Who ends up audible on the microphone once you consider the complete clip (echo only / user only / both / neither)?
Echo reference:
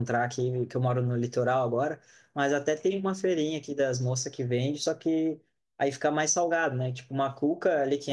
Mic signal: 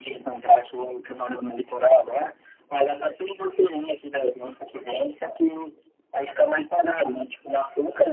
echo only